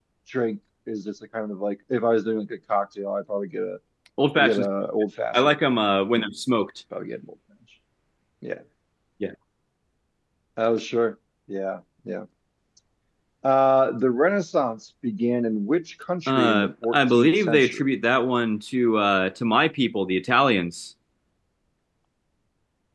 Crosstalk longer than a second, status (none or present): present